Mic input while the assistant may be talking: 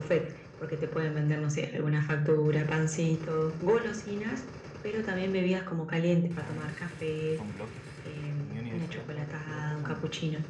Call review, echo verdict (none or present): present